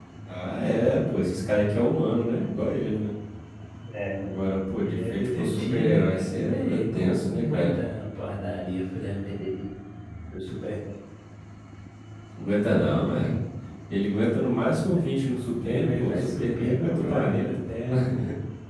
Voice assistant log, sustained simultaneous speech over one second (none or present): present